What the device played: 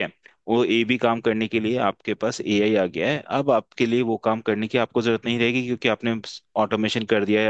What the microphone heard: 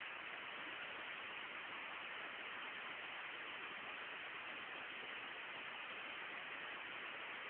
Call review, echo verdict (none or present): none